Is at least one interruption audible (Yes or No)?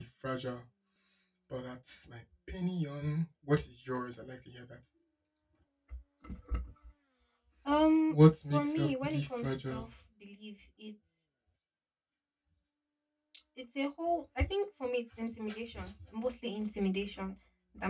Yes